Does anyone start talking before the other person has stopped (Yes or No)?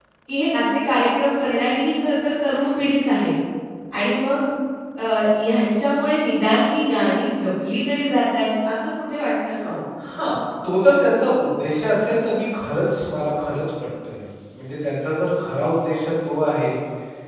No